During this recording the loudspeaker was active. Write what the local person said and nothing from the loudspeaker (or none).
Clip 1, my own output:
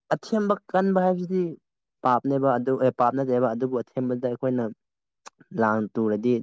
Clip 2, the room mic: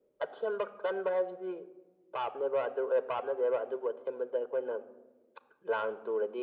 none